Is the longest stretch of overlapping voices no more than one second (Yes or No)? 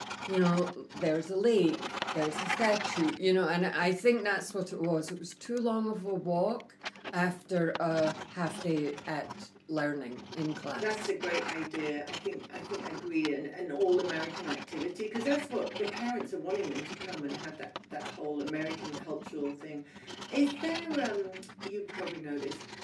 Yes